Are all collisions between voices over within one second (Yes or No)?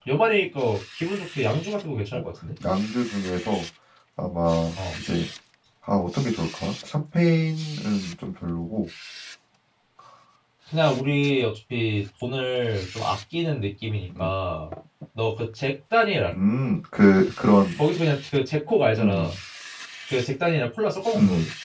Yes